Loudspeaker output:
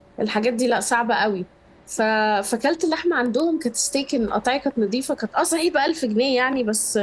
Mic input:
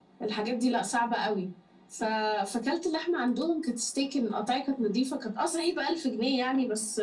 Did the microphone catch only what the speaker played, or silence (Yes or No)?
Yes